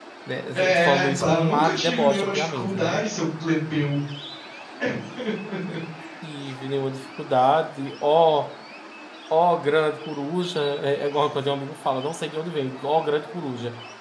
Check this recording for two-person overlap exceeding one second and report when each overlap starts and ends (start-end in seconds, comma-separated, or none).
0.5-3.2